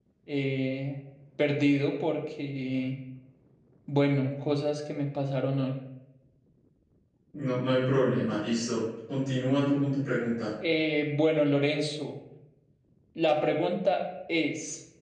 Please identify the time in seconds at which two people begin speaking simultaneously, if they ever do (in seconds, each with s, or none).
none